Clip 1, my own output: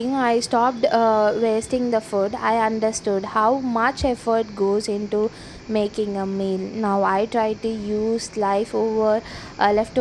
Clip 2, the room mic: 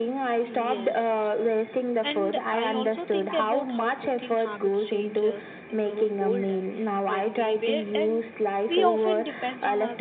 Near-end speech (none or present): present